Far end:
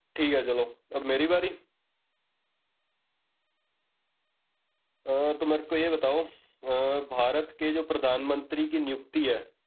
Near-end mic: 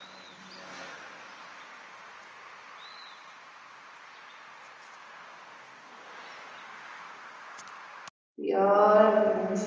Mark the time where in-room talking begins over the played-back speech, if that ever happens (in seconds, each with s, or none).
8.4 s